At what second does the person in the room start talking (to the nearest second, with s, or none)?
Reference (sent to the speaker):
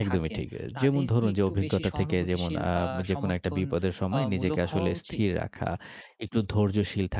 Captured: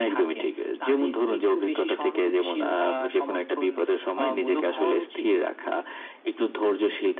none